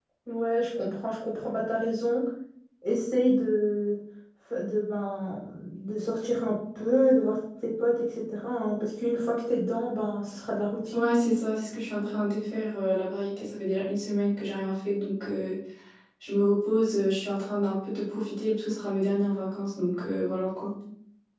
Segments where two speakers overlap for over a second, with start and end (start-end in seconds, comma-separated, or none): none